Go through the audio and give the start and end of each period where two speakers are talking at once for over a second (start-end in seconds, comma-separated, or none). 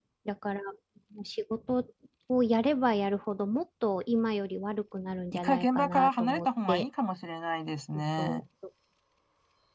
5.3-6.9